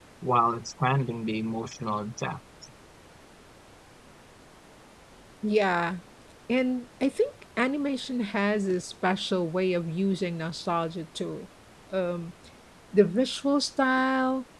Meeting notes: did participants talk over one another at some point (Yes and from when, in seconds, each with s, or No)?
No